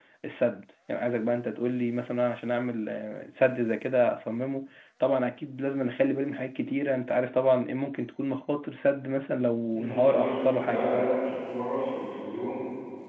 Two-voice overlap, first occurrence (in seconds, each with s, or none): 9.7 s